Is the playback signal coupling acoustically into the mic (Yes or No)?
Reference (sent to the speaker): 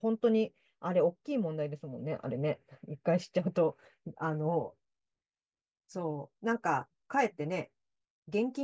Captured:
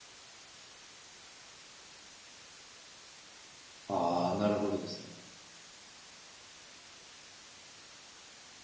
No